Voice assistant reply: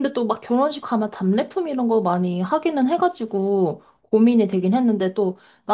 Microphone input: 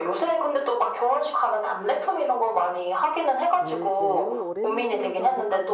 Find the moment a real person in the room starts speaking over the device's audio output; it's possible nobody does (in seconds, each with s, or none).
3.6 s